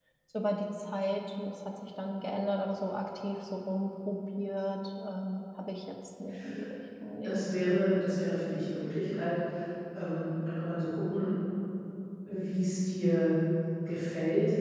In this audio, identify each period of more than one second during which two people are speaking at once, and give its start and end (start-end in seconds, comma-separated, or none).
none